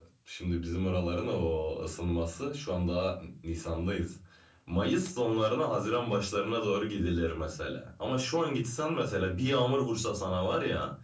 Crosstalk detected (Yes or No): No